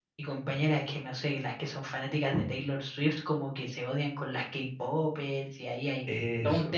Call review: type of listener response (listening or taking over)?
listening